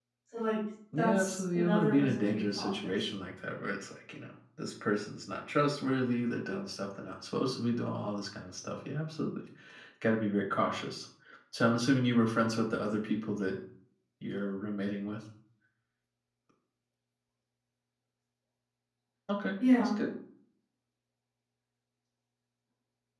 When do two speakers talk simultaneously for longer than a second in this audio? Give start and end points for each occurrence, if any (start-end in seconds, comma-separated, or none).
0.9-3.1